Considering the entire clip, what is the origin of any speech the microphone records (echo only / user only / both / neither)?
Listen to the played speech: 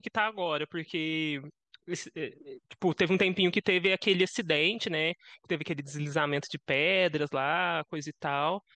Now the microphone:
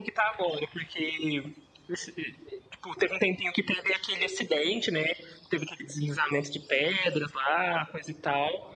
echo only